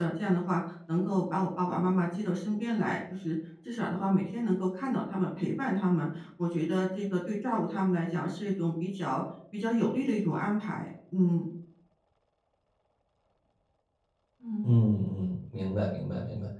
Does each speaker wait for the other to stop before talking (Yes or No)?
Yes